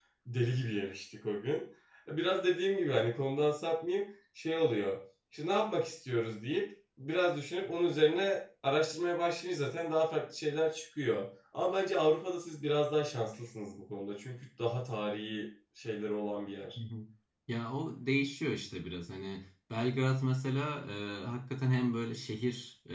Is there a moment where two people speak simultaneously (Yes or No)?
No